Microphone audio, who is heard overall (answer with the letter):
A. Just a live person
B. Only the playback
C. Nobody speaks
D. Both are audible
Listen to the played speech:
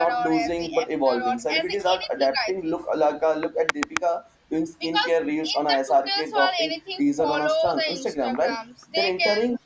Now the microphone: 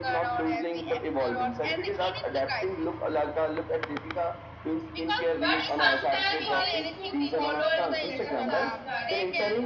D